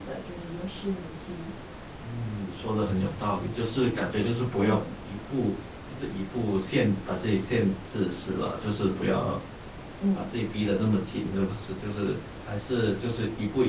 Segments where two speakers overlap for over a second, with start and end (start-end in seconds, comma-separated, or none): none